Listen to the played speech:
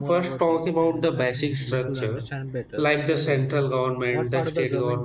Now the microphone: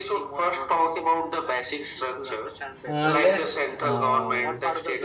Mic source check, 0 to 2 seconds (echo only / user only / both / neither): echo only